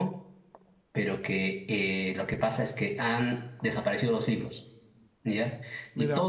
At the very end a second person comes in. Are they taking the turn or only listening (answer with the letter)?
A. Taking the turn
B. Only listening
B